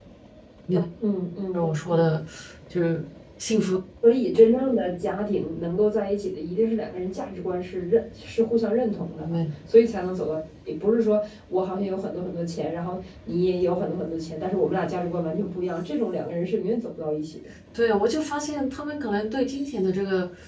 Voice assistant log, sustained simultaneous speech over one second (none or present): none